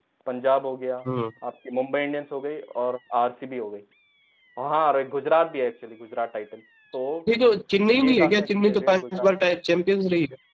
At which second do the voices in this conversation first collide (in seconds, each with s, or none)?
8.0 s